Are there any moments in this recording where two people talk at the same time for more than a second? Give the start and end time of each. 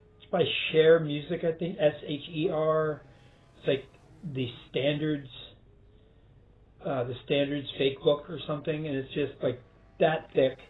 none

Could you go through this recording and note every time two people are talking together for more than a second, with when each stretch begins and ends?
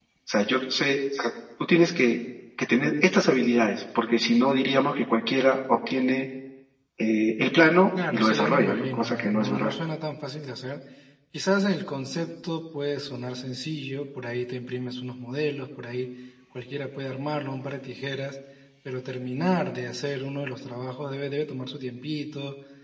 8.1-9.7

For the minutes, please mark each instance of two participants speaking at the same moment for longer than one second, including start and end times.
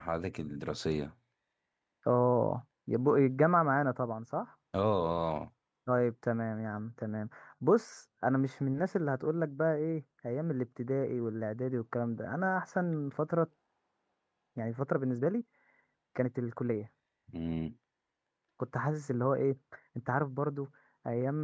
none

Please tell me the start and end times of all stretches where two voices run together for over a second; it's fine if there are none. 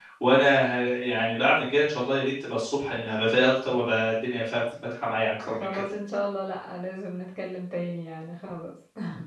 none

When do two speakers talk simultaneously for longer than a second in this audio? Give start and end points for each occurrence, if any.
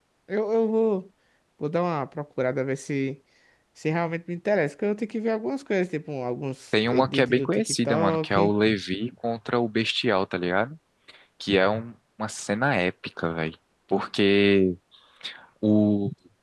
6.9-8.5

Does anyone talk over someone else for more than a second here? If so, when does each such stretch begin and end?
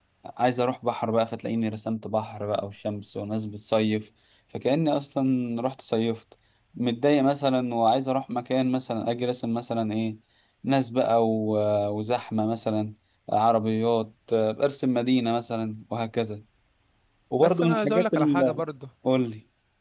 17.4-18.6

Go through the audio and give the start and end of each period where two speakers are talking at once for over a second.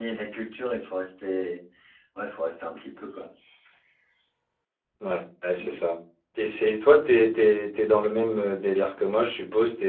none

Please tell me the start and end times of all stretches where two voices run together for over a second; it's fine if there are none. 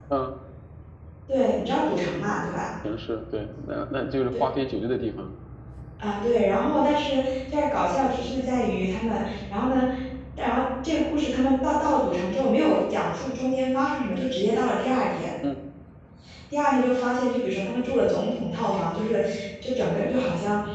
none

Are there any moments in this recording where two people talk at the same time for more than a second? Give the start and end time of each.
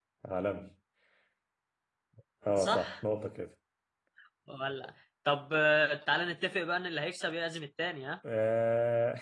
none

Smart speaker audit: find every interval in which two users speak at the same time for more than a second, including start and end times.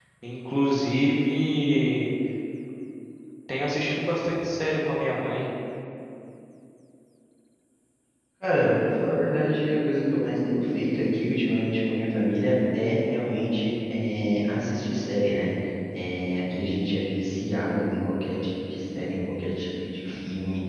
none

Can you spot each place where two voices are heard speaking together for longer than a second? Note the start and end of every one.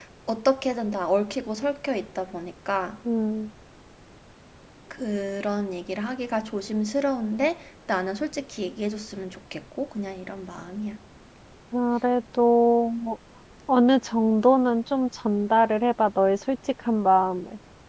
none

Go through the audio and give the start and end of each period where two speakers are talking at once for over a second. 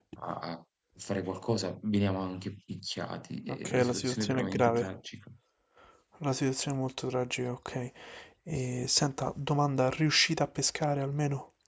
3.5-4.9

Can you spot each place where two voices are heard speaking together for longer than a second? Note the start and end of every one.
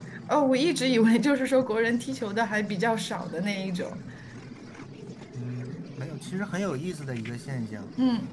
none

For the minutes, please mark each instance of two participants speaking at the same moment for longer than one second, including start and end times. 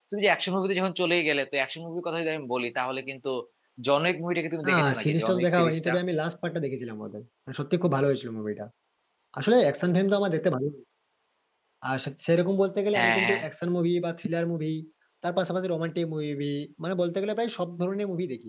4.7-5.9

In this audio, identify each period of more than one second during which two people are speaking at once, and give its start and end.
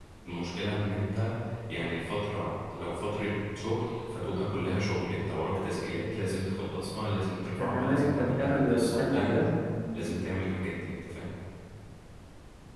7.6-9.4

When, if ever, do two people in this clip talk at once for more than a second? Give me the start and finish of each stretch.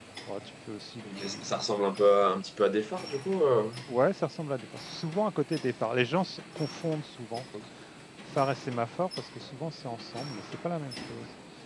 none

